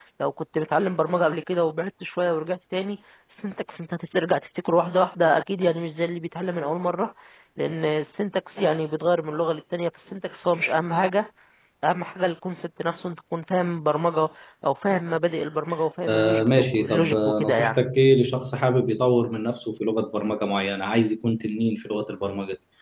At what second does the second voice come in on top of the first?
16 s

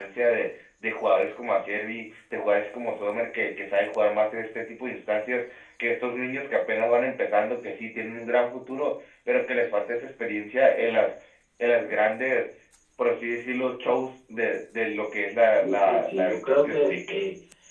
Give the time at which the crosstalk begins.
15 s

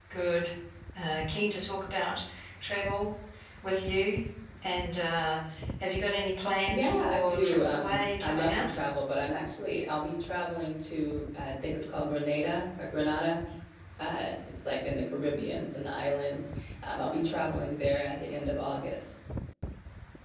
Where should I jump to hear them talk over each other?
7 s

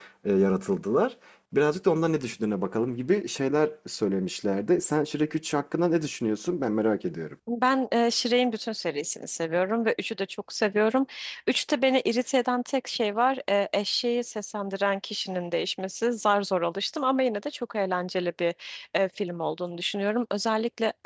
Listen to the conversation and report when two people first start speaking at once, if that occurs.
none

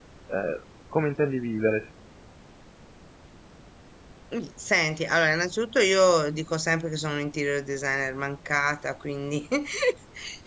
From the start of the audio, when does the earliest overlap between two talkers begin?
none

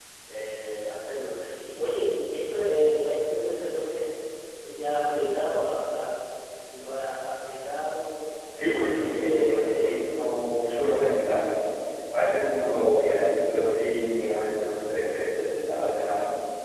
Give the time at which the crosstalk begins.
9 s

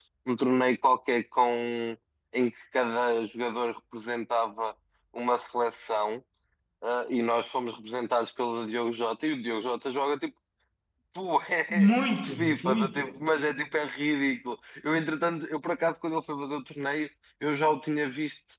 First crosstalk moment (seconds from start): 12 s

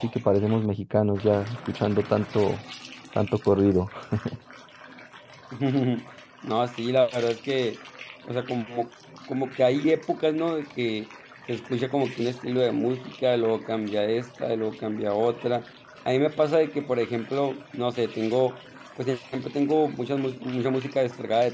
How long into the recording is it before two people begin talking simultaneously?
none

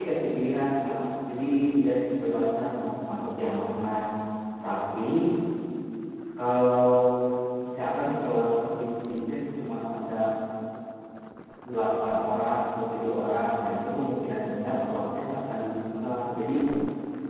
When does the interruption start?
none

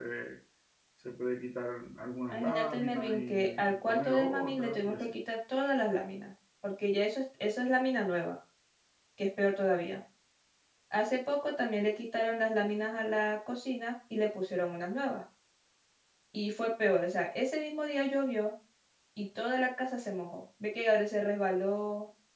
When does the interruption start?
2 s

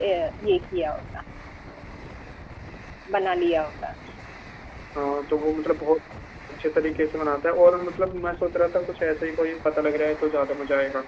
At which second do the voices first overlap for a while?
none

